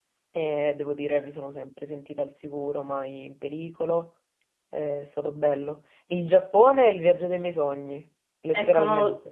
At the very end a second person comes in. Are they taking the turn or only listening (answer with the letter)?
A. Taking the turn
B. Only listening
A